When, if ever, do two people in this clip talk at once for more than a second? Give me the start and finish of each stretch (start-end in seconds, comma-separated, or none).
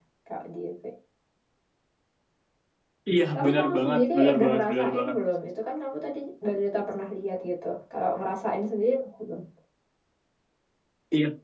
3.4-5.2